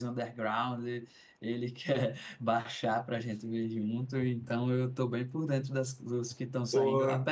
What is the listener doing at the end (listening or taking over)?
listening